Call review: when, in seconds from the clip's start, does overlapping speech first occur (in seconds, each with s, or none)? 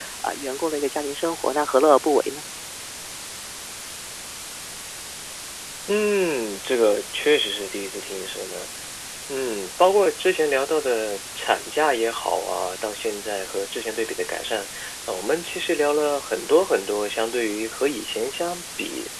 none